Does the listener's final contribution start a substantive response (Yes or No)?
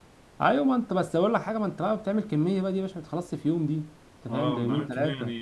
Yes